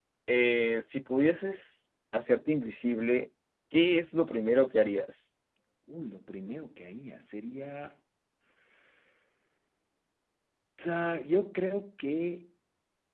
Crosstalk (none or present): none